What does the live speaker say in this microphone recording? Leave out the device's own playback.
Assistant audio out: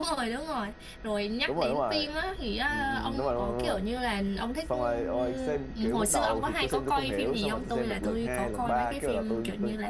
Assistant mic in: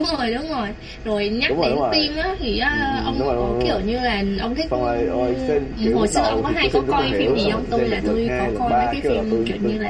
nó nặng nữa

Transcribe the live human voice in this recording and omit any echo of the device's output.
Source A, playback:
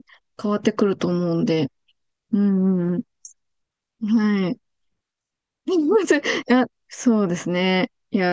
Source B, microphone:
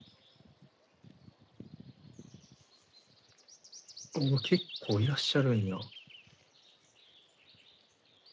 お、結構いらっしゃるんや。

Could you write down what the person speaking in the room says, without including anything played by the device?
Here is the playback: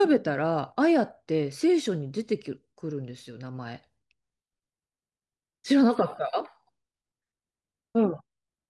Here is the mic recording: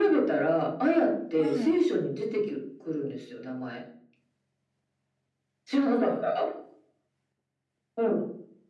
はい。

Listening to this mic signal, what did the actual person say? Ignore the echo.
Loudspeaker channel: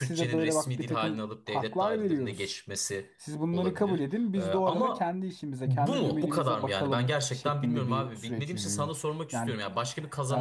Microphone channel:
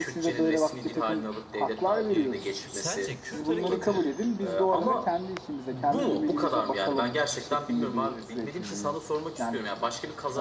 e, Kü- sence Kürt hareketi

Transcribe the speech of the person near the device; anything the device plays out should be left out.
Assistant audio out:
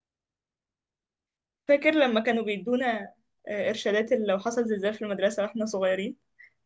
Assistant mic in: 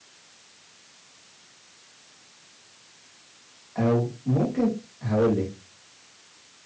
او ممكن هقول لك

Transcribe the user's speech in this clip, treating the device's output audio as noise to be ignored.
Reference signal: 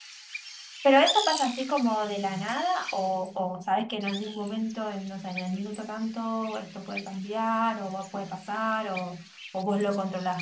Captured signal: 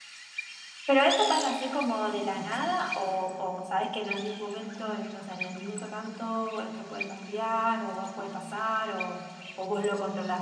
none

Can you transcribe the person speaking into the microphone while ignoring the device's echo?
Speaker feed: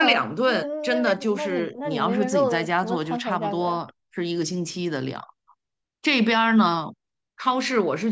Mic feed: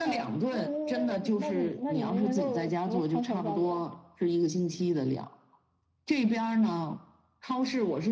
none

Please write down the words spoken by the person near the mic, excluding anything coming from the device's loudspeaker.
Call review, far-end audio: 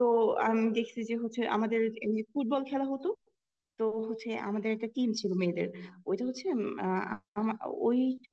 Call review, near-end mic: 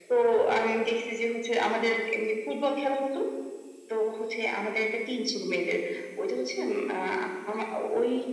none

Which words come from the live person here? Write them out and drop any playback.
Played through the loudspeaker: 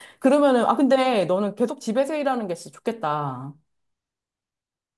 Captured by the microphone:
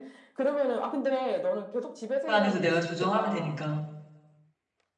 안에서 내가 조정하면 되니까.

